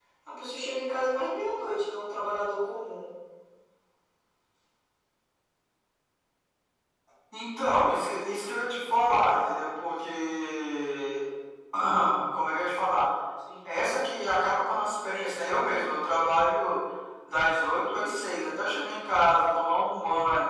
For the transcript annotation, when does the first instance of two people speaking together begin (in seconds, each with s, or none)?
none